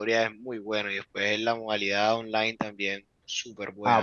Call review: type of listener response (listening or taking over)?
taking over